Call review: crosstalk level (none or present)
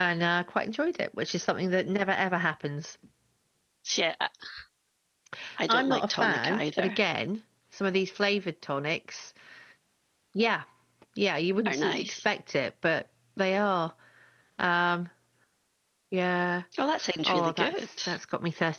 present